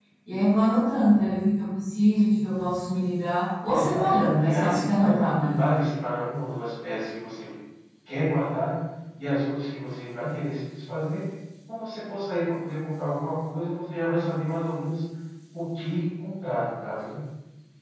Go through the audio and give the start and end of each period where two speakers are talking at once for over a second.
3.6-5.6

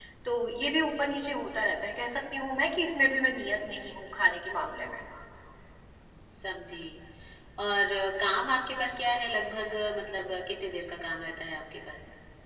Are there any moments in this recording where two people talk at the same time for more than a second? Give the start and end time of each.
none

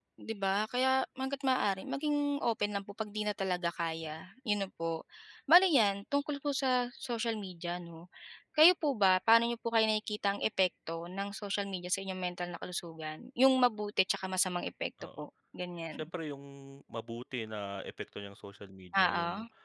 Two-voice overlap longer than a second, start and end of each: none

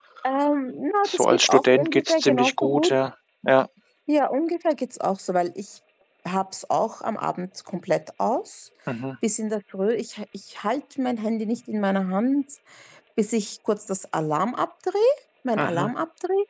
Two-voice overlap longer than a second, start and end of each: 1.0-2.9

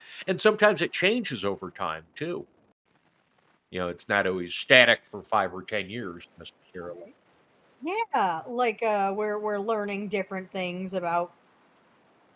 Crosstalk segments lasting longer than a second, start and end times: none

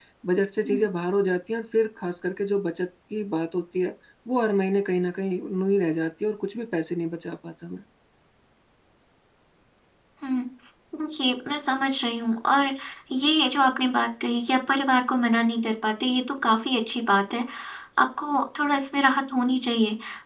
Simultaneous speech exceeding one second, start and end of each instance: none

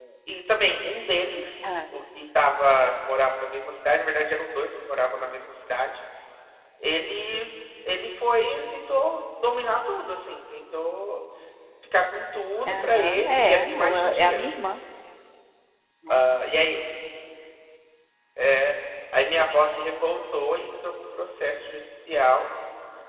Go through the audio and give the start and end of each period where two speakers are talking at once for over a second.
12.7-14.7

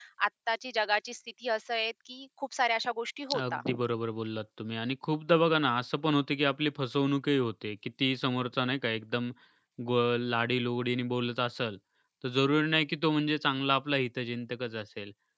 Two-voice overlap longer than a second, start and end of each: none

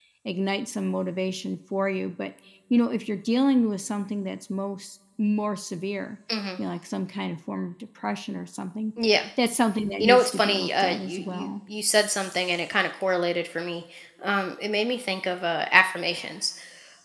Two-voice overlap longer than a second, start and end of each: 10.0-11.5

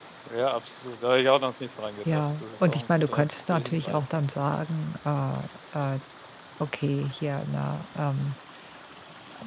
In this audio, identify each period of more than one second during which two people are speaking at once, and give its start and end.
2.1-4.0

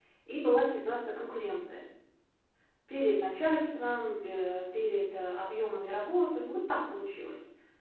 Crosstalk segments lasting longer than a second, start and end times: none

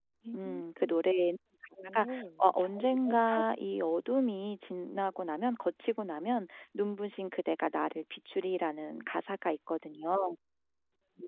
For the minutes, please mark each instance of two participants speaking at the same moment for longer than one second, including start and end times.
none

